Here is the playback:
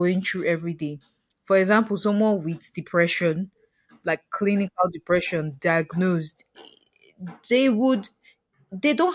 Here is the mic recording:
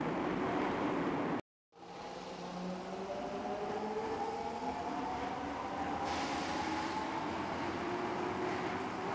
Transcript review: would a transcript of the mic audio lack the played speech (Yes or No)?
Yes